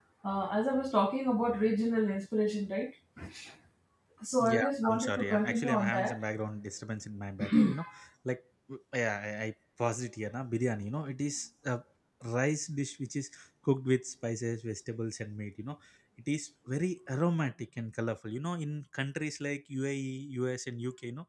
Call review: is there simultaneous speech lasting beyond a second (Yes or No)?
Yes